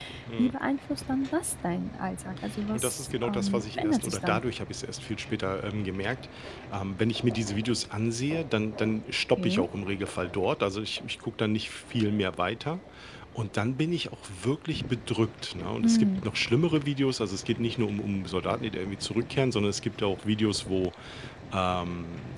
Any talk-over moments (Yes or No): Yes